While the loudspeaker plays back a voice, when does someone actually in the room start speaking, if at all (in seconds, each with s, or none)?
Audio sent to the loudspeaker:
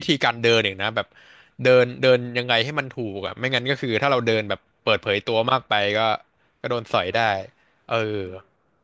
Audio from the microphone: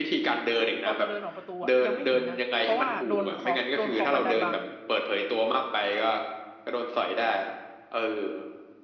0.8 s